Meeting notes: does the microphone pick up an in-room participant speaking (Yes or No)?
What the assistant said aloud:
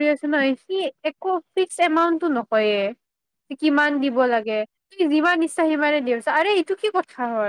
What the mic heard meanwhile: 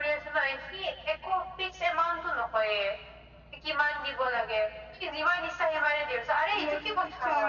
Yes